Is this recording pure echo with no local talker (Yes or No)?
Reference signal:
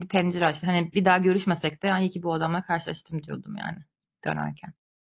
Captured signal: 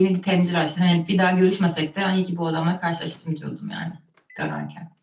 Yes